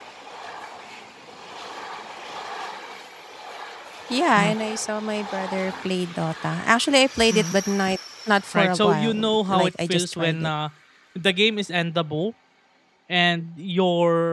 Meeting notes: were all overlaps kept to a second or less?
No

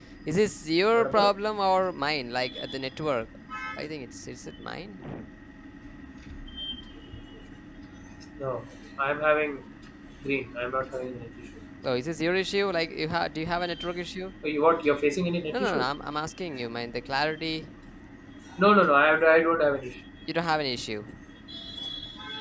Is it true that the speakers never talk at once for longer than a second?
Yes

